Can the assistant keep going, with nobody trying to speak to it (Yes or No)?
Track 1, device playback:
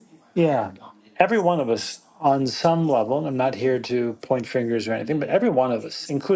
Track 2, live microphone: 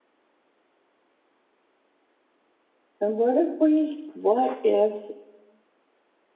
No